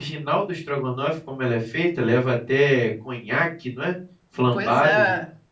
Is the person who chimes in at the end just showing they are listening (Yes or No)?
No